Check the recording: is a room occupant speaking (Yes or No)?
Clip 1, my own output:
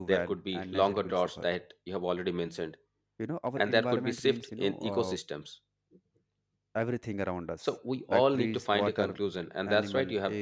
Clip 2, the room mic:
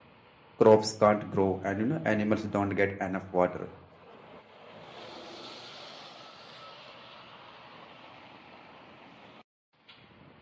Yes